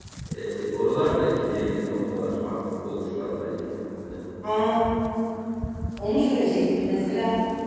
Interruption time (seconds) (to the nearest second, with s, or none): none